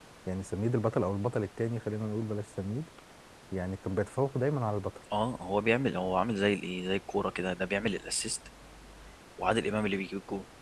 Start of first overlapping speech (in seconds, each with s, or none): none